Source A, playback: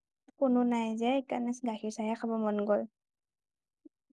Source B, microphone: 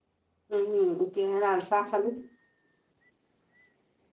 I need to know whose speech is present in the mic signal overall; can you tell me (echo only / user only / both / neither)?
user only